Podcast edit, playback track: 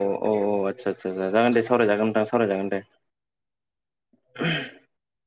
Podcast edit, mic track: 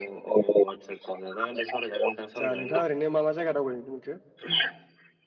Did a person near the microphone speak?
Yes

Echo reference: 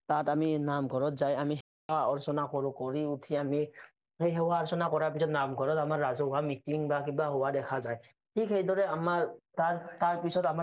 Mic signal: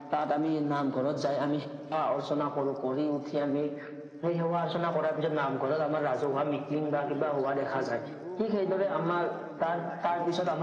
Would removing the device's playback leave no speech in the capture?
No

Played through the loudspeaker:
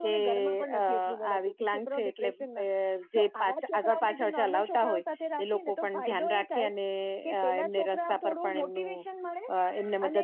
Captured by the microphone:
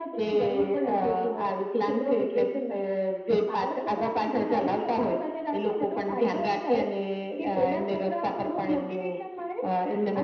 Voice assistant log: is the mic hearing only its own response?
Yes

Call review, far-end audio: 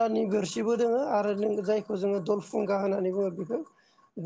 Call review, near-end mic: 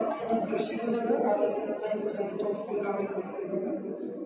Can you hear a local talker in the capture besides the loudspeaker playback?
No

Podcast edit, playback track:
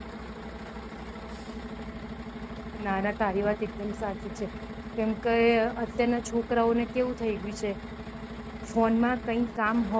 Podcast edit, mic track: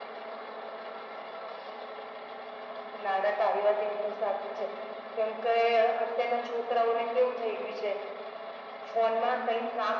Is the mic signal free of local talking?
Yes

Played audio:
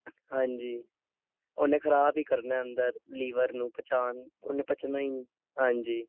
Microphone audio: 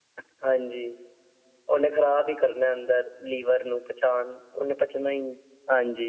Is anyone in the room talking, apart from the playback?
No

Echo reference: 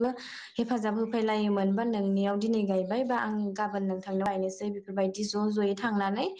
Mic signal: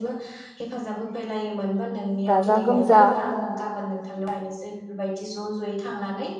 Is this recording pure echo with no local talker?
No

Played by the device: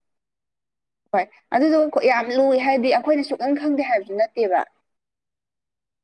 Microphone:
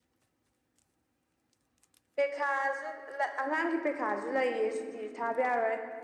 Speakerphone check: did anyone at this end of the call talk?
Yes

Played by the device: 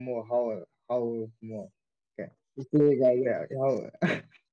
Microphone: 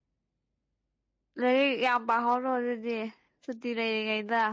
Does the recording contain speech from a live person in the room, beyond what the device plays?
Yes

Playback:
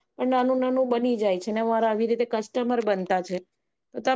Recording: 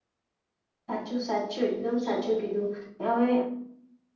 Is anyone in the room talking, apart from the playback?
Yes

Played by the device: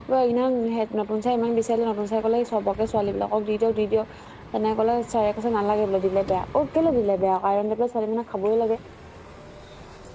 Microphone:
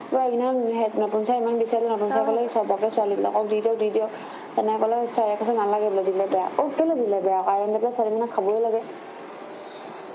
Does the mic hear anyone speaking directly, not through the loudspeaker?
Yes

